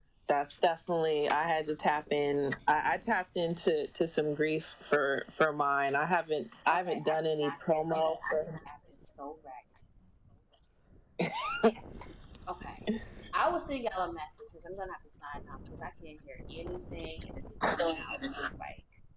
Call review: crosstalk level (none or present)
present